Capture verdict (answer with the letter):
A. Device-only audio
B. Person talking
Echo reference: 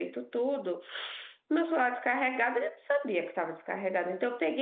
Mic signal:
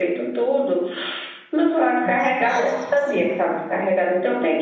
B